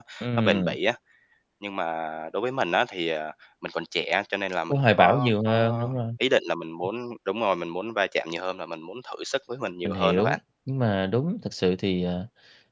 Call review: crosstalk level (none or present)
present